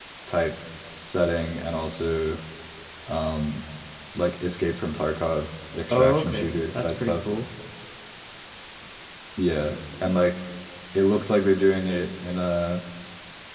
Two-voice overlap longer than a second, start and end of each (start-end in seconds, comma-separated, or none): 5.9-7.2